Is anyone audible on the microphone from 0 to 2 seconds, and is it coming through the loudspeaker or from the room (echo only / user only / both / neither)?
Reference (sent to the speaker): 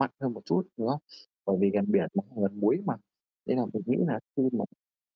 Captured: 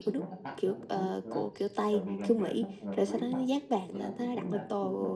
both